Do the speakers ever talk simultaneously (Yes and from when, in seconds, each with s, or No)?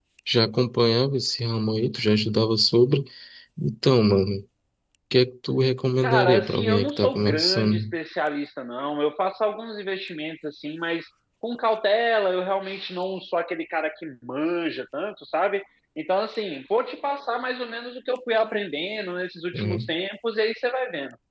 Yes, from 6.0 s